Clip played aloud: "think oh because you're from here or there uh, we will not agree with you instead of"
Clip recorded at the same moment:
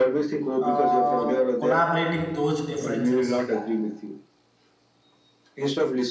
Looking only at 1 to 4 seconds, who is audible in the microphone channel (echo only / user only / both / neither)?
both